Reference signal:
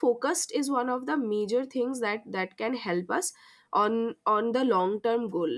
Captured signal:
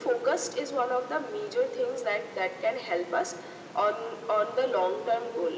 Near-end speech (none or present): none